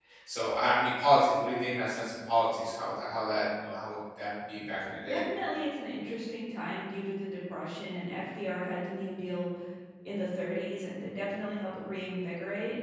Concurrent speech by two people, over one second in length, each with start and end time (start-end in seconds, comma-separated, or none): none